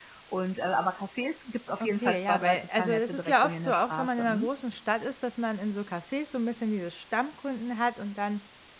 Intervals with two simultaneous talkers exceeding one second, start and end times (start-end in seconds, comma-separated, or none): 1.8-4.5